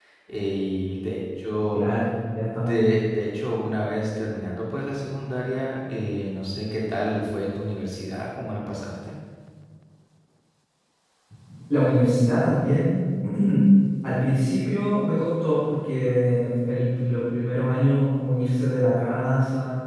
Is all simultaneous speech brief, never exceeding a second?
Yes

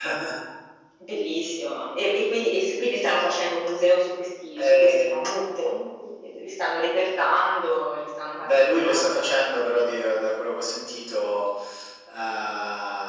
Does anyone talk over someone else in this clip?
Yes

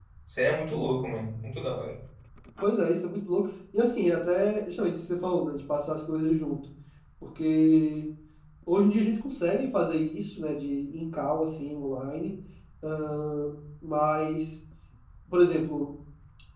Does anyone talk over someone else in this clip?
No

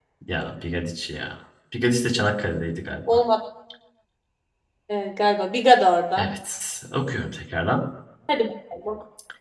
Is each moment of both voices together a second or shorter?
Yes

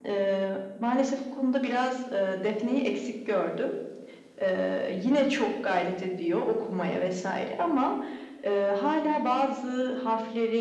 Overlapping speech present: No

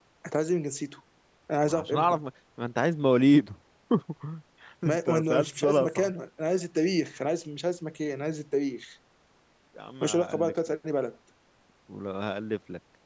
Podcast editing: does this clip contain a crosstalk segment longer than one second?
Yes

